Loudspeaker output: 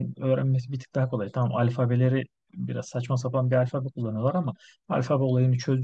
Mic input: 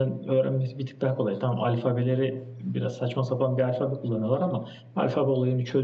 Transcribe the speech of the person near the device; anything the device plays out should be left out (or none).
none